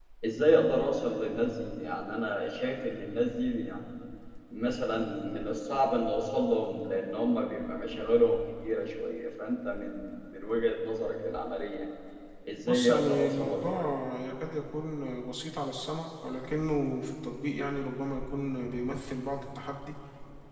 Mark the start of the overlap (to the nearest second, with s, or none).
13 s